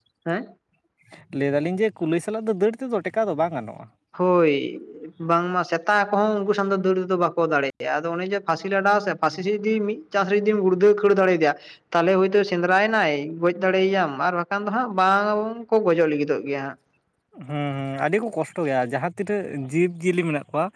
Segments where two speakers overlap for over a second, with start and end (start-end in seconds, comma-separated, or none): none